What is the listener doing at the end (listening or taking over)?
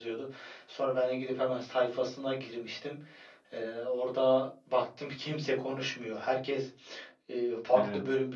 listening